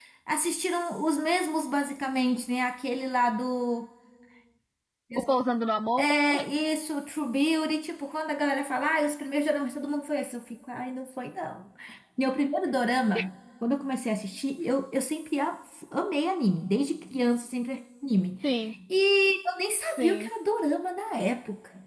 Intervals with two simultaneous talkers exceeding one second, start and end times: none

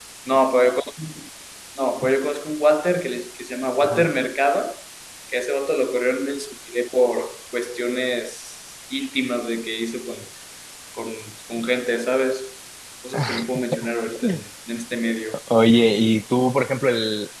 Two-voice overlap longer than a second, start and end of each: none

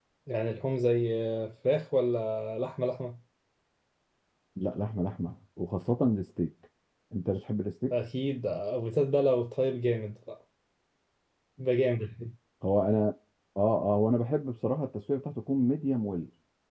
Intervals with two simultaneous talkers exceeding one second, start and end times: none

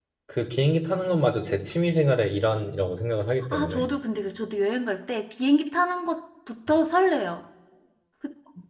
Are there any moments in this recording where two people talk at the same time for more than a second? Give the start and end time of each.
none

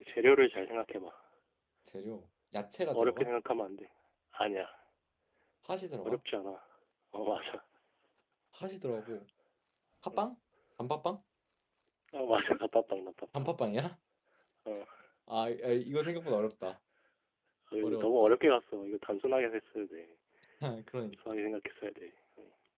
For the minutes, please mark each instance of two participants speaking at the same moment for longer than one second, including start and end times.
none

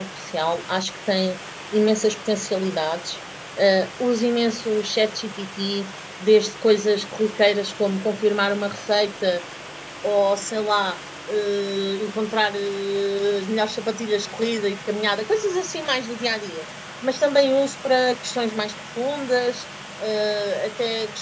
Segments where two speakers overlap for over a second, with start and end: none

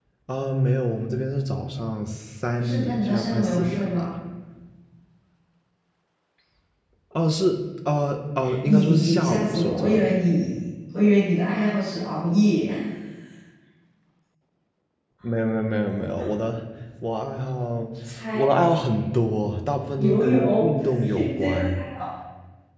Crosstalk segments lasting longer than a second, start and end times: 2.6-4.1, 8.7-10.1, 20.0-21.8

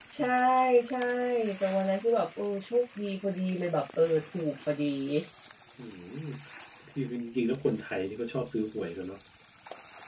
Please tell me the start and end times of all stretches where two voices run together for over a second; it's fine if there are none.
none

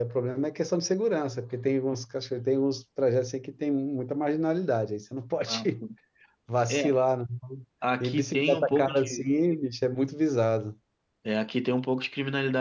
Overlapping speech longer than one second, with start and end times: 8.0-9.3

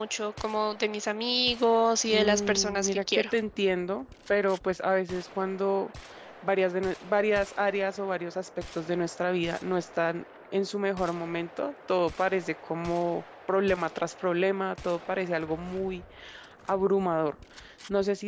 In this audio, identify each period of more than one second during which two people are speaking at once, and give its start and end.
2.1-3.3

